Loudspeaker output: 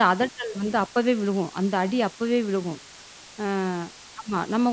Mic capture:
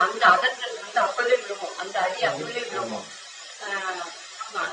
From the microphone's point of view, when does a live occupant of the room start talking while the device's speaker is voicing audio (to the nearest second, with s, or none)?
2 s